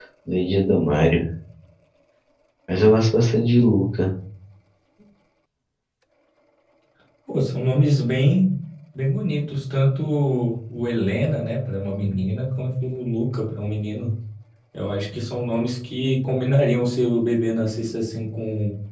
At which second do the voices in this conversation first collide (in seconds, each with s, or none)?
none